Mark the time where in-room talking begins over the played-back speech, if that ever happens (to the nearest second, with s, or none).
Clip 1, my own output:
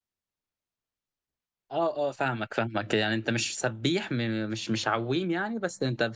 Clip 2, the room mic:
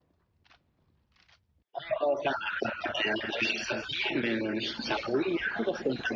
none